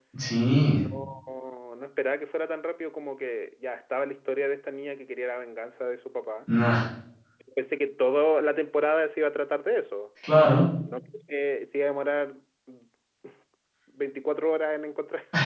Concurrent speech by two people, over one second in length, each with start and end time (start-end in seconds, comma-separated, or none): none